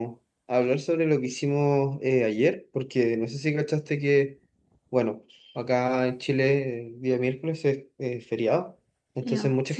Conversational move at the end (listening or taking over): listening